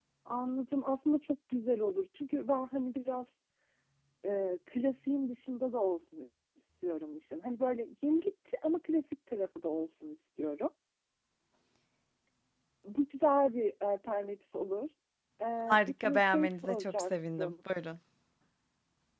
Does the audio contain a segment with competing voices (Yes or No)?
Yes